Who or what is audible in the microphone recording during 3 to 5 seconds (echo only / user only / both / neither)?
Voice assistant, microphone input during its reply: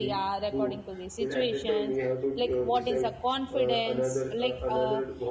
both